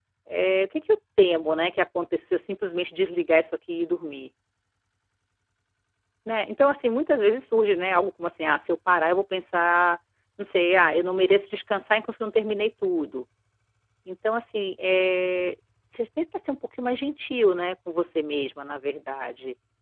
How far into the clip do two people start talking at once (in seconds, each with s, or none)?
none